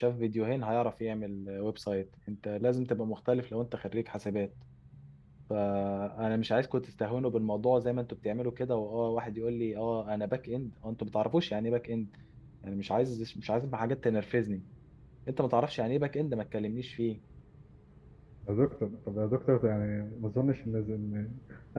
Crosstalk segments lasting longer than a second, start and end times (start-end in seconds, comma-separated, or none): none